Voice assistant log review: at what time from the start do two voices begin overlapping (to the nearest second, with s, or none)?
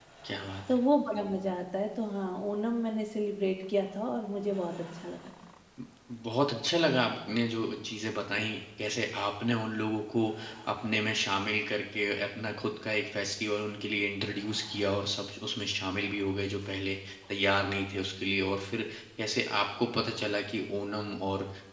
none